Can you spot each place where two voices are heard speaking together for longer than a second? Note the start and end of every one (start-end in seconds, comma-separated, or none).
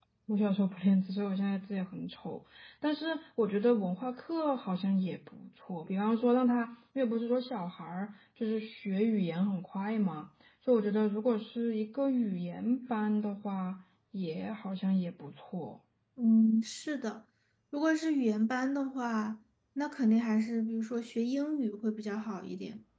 none